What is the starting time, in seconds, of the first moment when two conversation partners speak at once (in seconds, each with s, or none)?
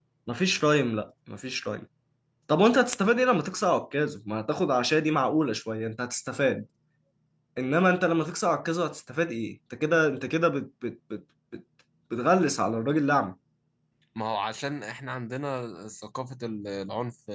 none